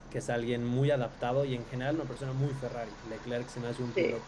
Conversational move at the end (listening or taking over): listening